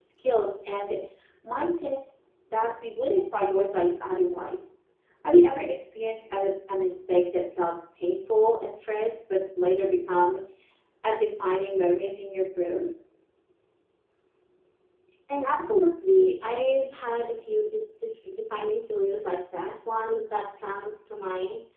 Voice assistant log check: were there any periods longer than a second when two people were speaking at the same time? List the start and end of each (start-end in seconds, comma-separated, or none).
none